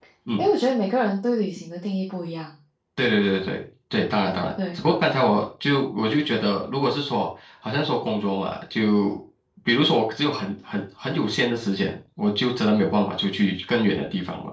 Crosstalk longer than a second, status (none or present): none